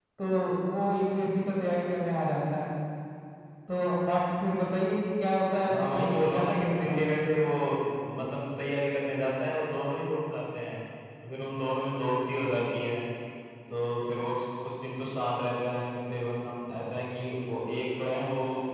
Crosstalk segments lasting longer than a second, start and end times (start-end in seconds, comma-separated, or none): 5.7-7.0